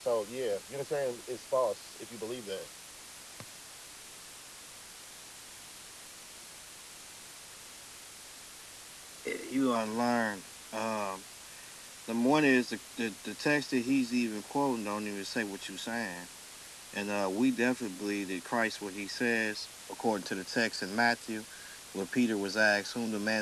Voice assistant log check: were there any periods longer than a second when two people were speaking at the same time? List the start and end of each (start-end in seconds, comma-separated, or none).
none